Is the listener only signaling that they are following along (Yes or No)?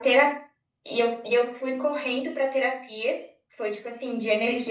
No